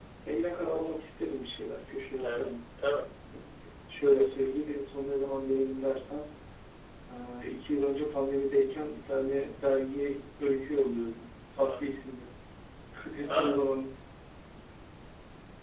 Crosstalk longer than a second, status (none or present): none